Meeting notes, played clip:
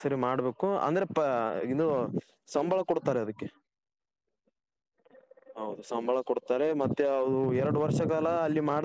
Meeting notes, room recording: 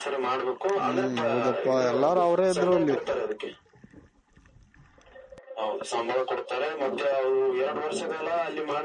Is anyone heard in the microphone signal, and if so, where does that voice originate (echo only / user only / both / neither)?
both